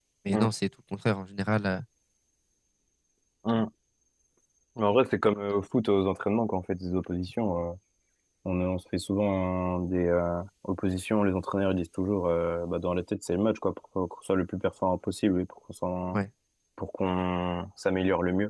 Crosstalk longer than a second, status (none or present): none